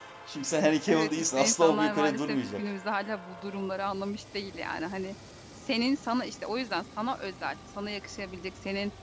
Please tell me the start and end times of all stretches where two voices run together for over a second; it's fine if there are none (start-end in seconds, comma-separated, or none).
0.9-2.6